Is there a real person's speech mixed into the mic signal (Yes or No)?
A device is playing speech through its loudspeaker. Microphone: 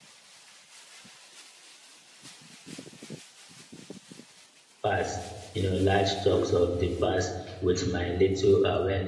Yes